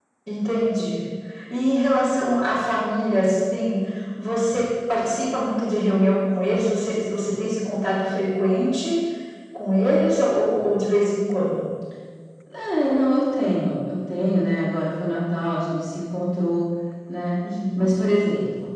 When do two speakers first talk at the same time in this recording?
none

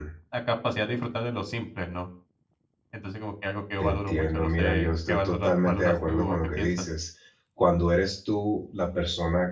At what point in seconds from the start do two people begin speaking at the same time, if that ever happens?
4 s

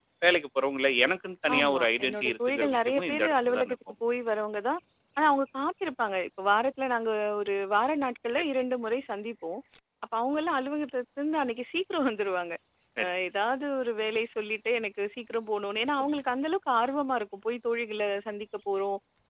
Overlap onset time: 1 s

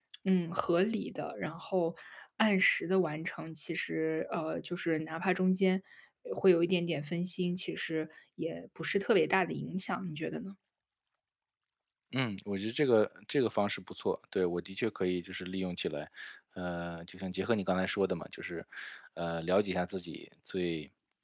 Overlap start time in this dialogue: none

